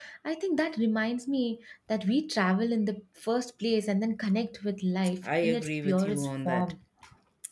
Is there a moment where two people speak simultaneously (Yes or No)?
Yes